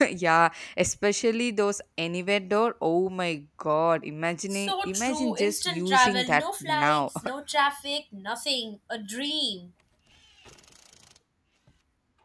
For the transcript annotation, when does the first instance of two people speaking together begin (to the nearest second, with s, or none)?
4 s